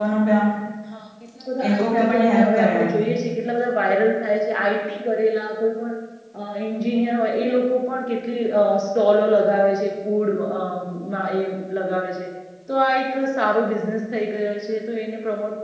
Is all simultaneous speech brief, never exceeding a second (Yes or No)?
No